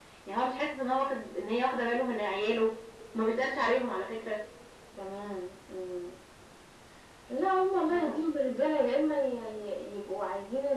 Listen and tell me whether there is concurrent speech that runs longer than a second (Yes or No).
No